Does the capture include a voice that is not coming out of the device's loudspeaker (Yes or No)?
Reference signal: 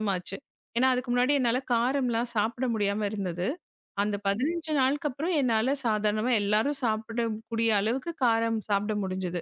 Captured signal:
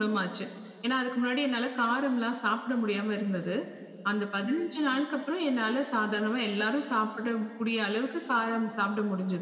No